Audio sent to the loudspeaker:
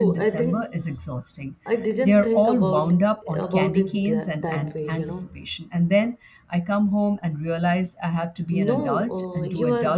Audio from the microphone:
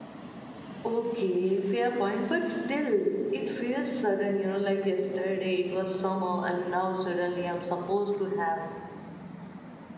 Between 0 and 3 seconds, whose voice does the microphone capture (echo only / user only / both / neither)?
user only